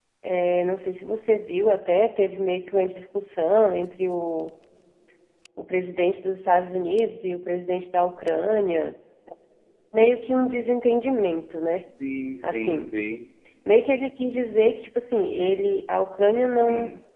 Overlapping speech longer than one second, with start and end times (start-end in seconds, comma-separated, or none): none